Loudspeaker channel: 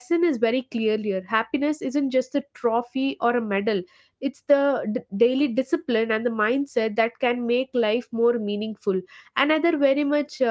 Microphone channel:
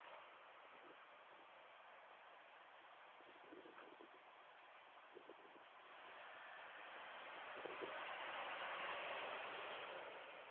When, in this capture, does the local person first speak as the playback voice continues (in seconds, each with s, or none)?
none